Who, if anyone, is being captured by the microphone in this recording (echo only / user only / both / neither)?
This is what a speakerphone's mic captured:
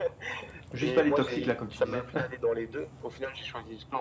both